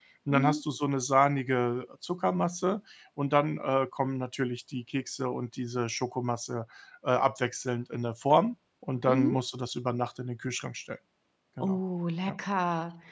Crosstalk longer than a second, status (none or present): none